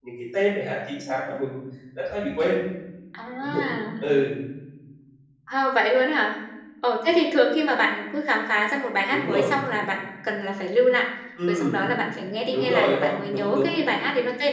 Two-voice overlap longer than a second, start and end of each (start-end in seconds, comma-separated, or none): 12.5-13.8